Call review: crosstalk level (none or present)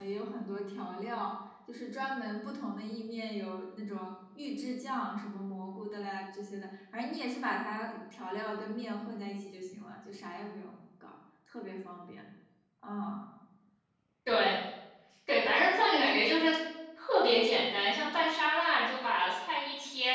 none